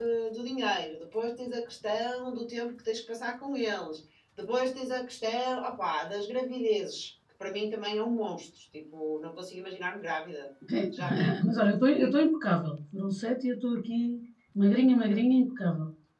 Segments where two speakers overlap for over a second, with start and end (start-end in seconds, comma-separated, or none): none